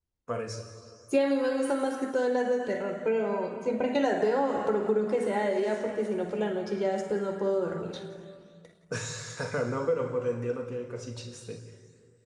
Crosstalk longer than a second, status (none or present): none